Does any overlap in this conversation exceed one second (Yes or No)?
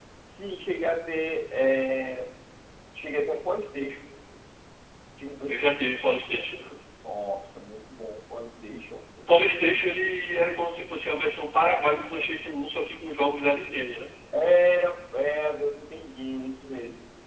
No